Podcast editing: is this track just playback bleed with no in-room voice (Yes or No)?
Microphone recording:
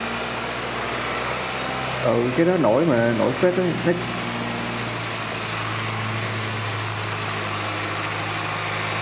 No